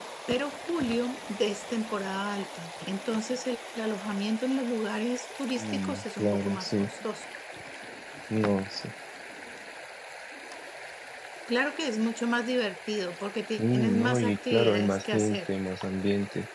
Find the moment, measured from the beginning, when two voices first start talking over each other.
6 s

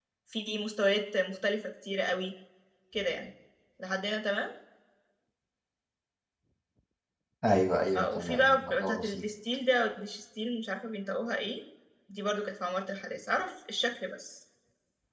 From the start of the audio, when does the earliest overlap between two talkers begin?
8 s

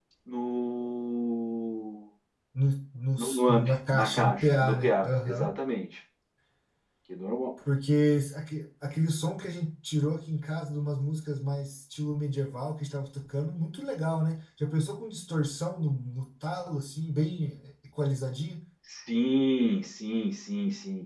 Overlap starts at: 3 s

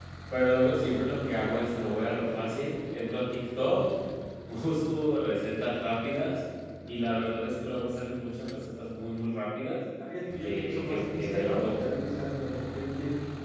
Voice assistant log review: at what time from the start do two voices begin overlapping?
10 s

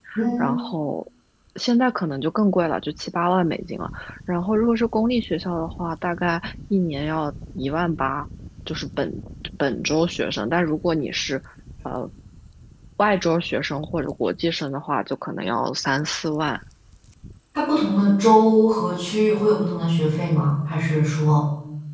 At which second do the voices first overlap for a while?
none

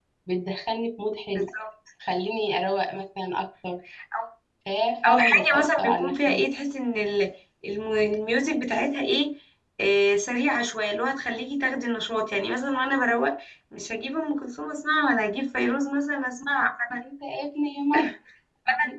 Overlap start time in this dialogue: 5 s

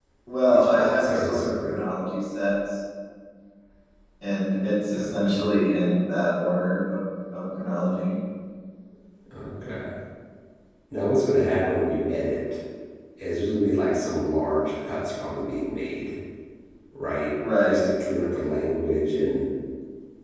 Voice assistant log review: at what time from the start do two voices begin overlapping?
1 s

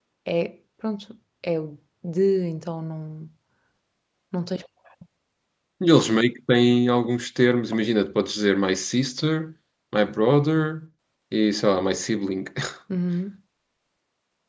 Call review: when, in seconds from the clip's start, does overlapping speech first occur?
none

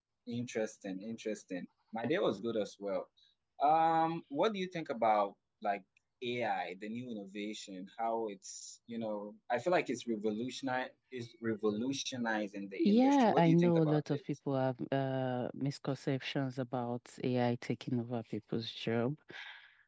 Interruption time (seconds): 13 s

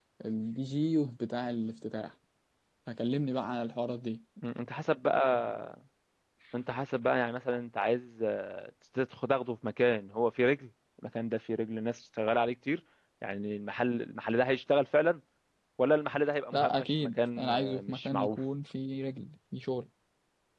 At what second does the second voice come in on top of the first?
17 s

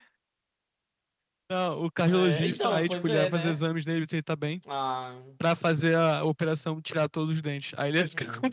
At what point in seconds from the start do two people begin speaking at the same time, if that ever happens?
2 s

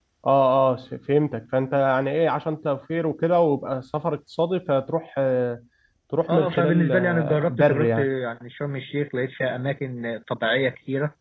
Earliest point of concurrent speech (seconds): 6 s

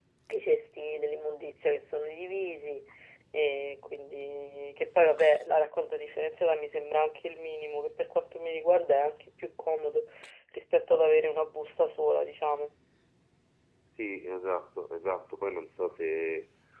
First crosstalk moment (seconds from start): none

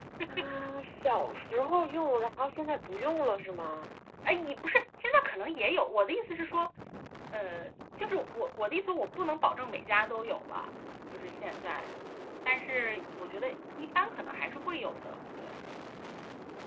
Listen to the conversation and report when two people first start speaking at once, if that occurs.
none

